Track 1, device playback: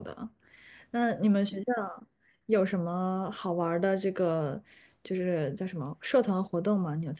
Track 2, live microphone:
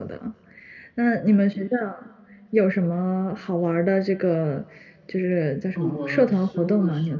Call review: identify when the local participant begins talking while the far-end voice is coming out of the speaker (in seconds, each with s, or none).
5.7 s